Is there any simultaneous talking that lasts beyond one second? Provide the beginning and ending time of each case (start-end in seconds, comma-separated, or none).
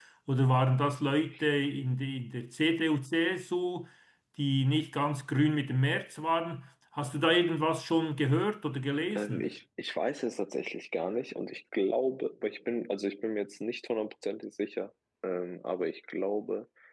none